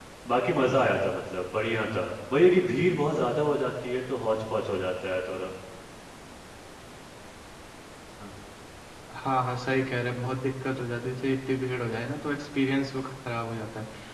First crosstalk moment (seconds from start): none

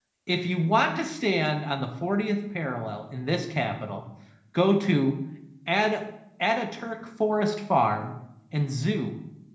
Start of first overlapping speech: none

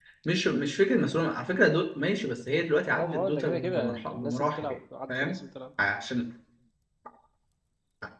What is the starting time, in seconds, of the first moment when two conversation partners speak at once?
2.9 s

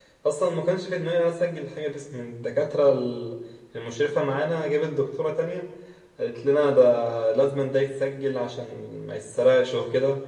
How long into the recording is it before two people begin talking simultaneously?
none

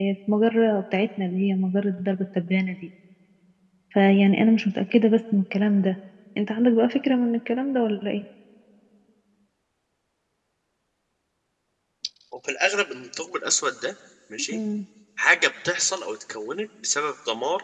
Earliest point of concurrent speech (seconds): none

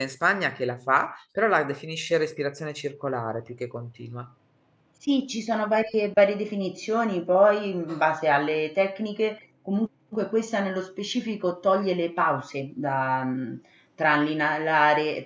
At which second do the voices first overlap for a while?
none

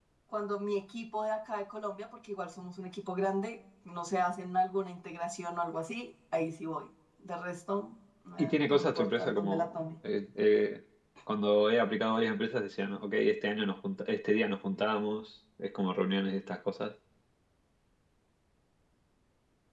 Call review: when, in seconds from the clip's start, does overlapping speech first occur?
8.4 s

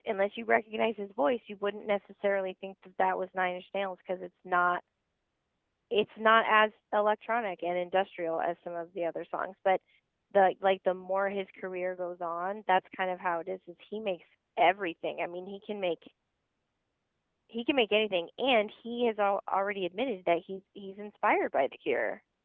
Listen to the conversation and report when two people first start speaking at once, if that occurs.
none

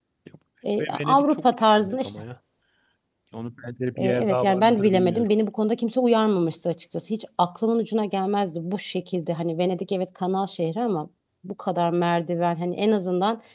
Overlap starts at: 0.8 s

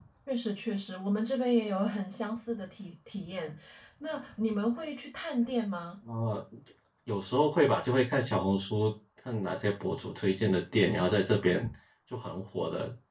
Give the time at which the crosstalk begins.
none

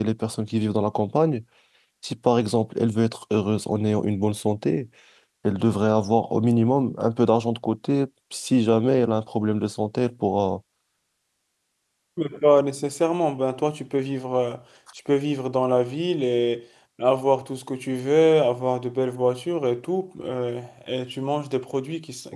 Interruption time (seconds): none

